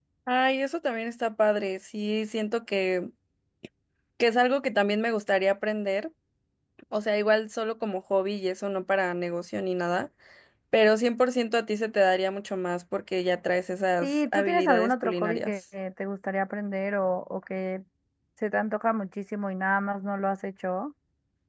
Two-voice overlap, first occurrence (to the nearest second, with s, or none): 14 s